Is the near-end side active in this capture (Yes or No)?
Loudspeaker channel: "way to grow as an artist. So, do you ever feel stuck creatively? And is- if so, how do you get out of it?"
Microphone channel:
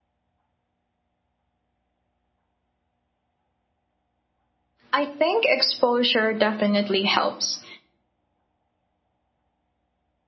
Yes